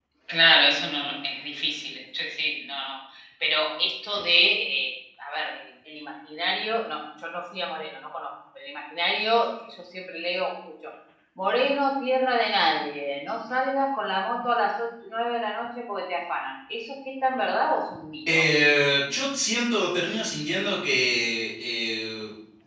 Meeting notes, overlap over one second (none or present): none